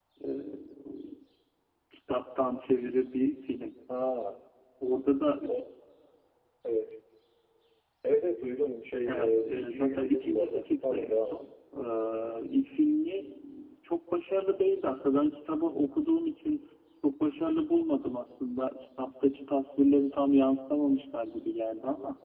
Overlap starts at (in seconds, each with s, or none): 9.1 s